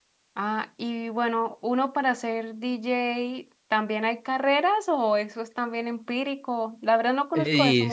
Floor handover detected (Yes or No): Yes